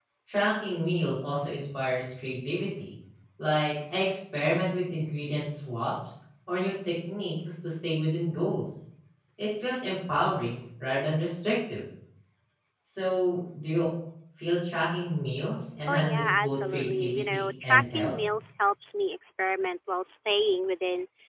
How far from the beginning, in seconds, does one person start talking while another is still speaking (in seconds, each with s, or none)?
15.9 s